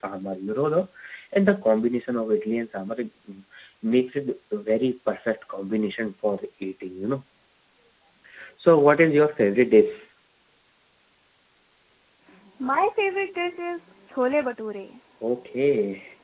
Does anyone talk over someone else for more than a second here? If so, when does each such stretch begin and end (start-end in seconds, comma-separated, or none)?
none